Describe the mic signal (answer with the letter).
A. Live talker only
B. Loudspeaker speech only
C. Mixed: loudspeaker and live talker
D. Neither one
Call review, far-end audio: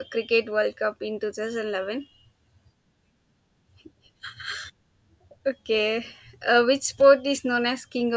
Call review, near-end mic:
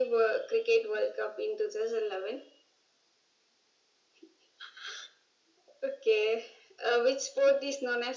B